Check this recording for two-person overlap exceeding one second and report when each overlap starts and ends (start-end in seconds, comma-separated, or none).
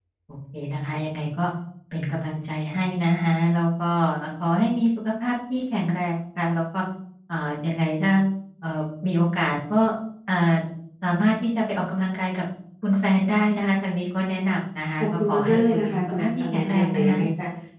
15.0-17.2